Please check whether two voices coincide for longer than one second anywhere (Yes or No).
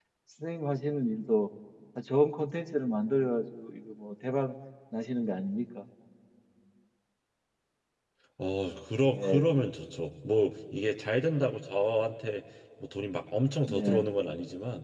No